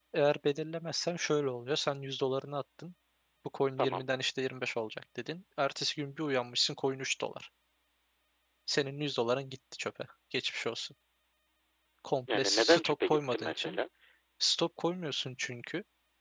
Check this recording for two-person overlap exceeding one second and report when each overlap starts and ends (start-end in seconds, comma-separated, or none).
12.3-13.8